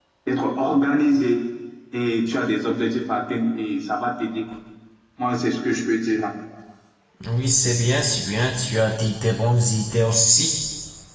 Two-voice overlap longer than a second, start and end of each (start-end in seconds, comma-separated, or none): none